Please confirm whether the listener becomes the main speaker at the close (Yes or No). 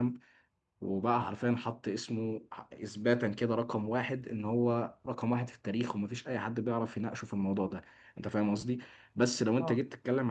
No